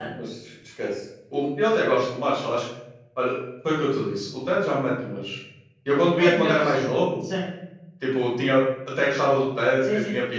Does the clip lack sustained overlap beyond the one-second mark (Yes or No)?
Yes